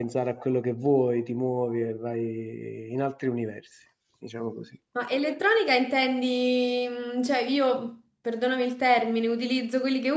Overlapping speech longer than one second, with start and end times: none

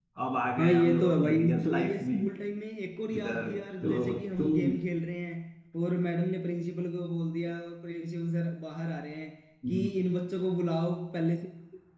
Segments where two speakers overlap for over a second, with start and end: 0.6-2.2, 3.1-4.8

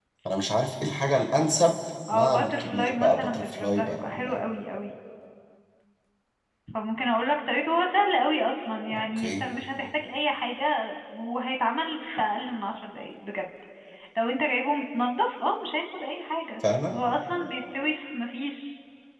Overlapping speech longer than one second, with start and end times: 2.1-4.4

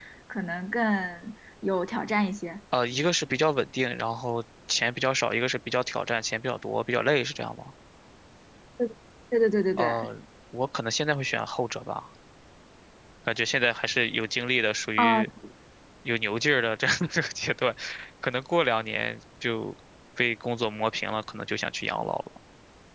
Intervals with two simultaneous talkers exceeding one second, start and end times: none

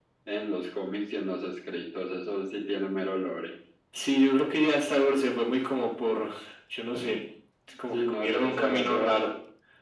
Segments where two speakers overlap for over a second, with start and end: 7.9-9.3

